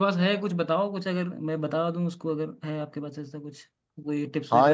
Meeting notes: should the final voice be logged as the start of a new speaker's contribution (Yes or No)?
Yes